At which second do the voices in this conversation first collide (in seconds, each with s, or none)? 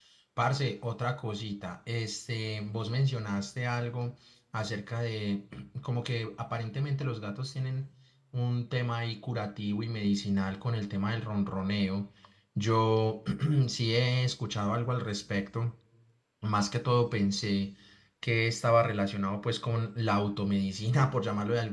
none